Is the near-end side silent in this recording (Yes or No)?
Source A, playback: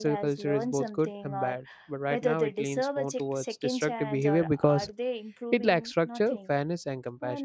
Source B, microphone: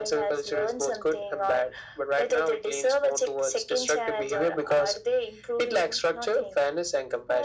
Yes